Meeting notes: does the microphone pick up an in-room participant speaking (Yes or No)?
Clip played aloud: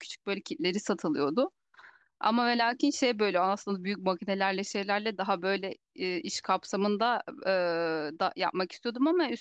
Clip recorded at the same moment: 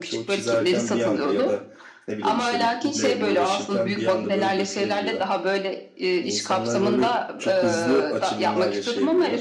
Yes